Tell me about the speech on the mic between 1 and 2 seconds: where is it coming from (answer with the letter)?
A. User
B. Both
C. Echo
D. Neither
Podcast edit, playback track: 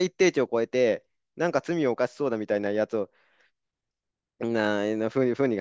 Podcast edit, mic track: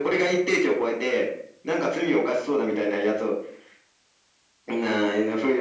C